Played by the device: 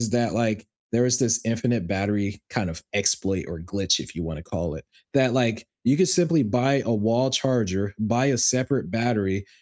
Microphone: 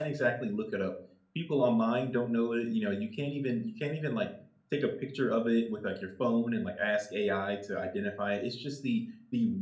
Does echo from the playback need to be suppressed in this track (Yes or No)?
No